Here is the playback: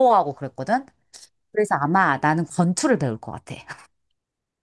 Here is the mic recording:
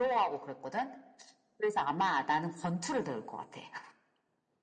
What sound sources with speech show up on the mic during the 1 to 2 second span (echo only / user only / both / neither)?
echo only